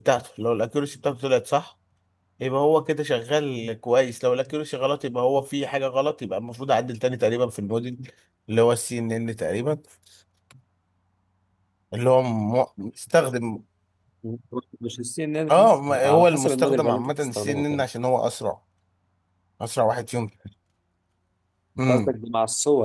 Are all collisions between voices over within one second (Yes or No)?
No